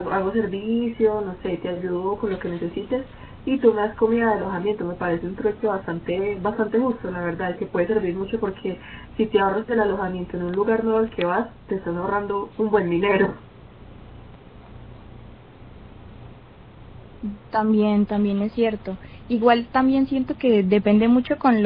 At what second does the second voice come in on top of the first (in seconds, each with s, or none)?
none